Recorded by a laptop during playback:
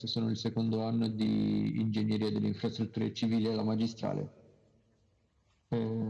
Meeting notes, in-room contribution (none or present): none